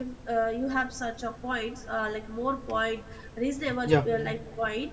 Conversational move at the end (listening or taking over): listening